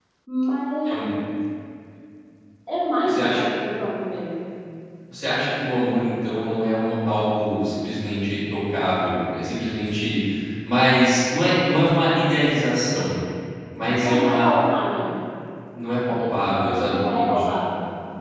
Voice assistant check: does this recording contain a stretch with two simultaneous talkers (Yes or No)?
Yes